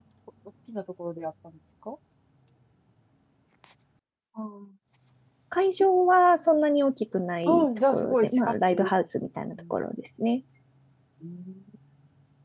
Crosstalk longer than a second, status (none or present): present